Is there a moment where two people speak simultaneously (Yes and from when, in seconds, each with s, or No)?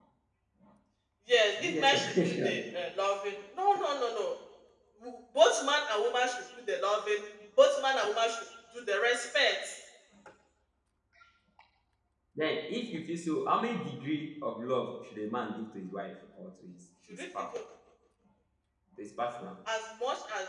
Yes, from 1.6 s